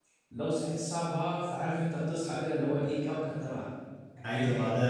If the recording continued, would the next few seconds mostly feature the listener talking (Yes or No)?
Yes